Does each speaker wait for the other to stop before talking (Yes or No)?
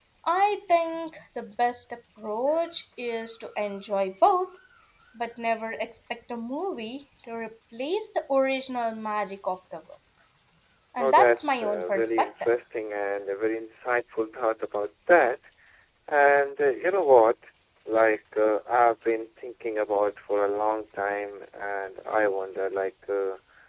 No